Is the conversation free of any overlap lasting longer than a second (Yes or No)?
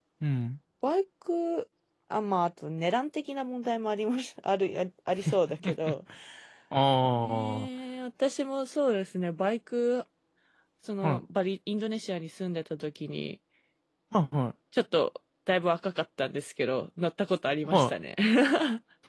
Yes